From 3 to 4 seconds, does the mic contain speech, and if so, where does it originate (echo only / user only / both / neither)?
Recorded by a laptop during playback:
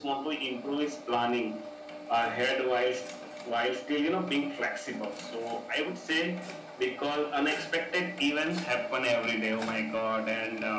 echo only